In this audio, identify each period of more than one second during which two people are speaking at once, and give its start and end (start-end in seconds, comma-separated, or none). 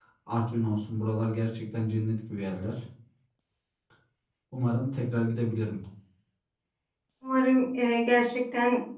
none